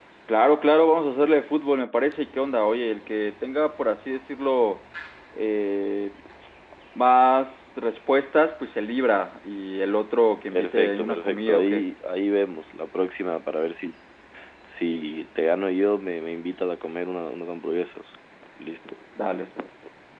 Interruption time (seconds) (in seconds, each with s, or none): 10.5 s